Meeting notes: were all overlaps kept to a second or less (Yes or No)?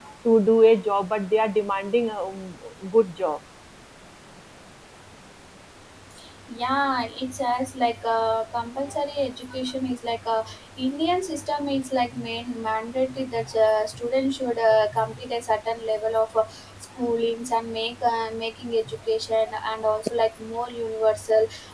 Yes